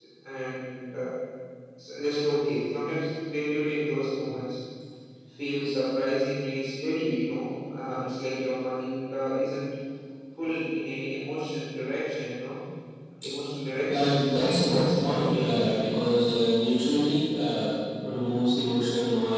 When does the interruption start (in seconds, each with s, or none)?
13.9 s